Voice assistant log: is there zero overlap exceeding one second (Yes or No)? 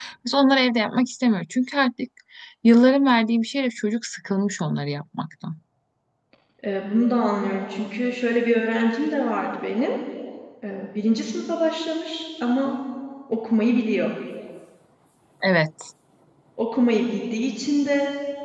Yes